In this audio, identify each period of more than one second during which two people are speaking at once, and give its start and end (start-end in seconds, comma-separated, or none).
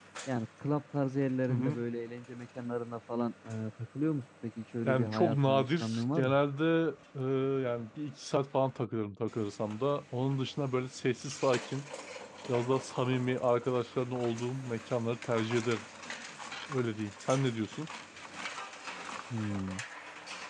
4.8-6.4